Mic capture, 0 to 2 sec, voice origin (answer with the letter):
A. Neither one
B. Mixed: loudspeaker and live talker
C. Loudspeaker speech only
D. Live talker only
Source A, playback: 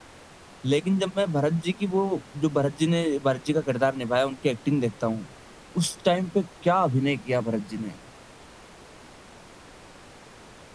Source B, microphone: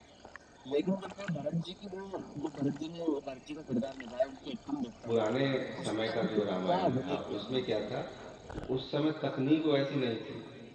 C